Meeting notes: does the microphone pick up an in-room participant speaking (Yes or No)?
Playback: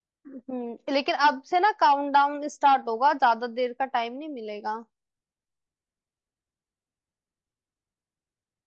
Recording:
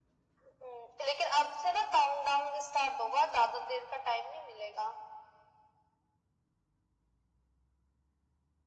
No